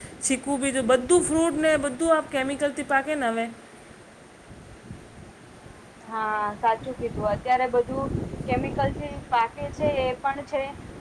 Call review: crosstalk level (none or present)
none